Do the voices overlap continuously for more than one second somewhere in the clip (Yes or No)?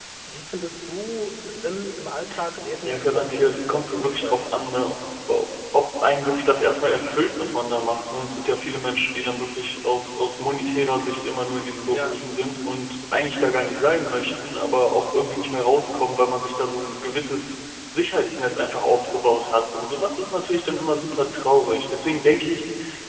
Yes